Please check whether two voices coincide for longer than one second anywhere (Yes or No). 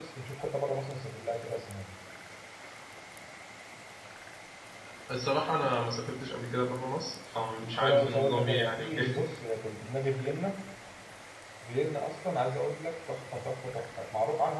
Yes